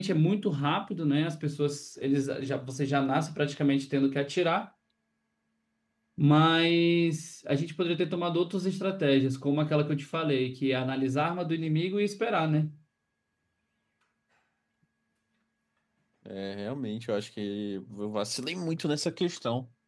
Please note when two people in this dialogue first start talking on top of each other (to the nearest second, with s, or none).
none